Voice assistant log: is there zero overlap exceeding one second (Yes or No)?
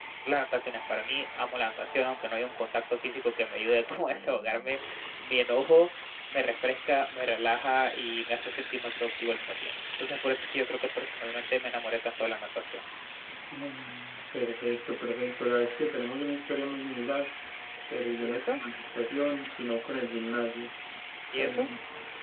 Yes